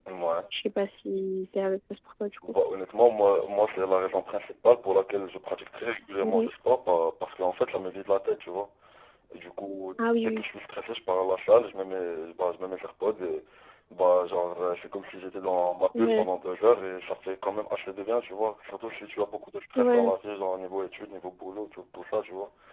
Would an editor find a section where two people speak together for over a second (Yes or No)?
No